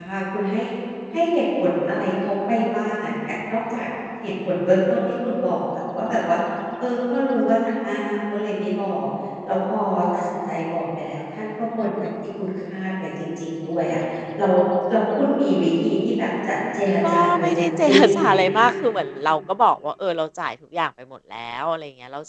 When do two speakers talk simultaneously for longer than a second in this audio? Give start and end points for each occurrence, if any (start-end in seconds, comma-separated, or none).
17.1-18.7